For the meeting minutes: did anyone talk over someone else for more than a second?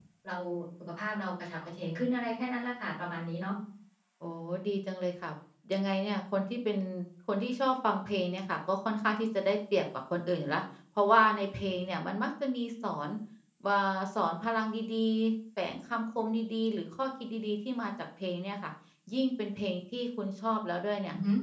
No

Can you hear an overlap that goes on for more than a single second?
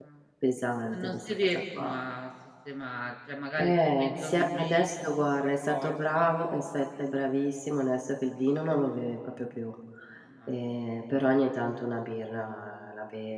Yes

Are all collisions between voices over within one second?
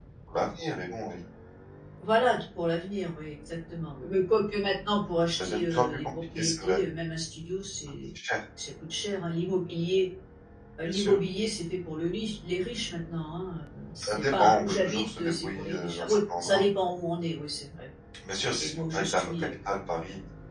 No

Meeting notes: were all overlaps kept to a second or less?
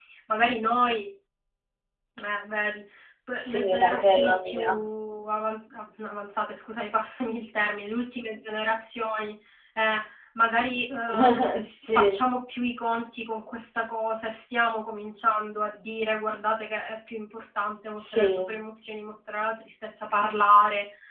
No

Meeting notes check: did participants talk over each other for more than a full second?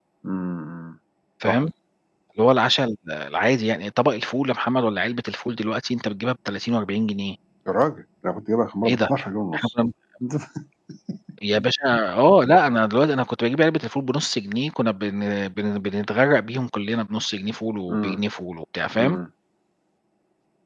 No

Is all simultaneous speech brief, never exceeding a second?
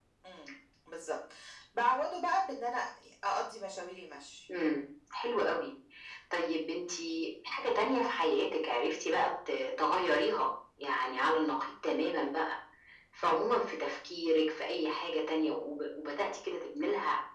Yes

